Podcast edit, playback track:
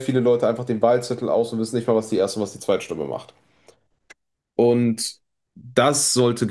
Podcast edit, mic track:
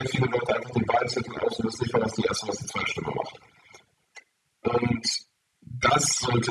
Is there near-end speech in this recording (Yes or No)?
No